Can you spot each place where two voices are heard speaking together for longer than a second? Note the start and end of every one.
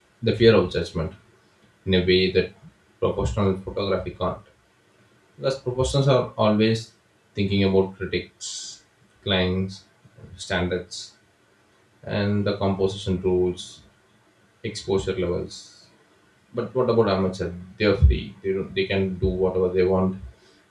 none

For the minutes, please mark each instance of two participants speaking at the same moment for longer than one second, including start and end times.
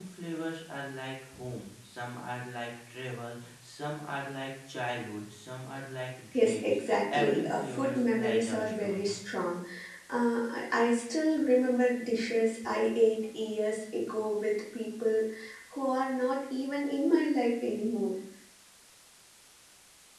6.3-9.2

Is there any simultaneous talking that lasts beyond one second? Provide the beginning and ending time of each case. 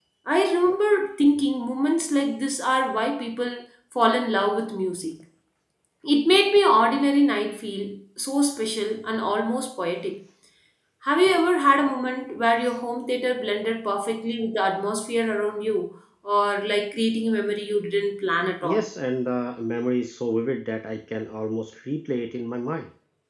none

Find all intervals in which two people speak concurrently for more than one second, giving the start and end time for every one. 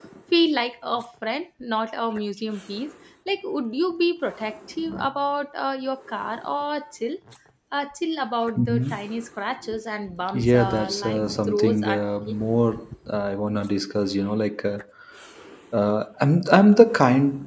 10.3-12.4

